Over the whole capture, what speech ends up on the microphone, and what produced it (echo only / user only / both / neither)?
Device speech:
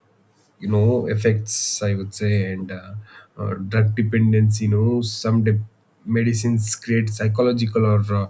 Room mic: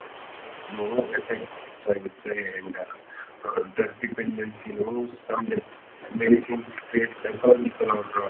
echo only